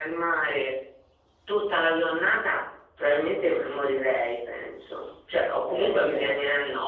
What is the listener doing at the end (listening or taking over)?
listening